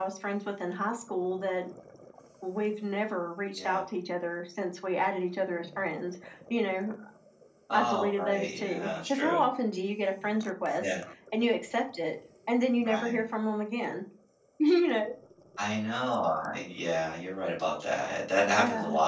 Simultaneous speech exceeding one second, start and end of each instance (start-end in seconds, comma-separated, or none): 7.7-9.4